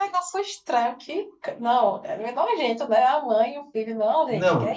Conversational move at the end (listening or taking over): taking over